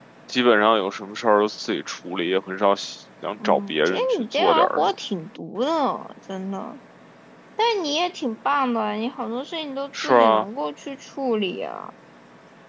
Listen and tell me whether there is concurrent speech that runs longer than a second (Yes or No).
Yes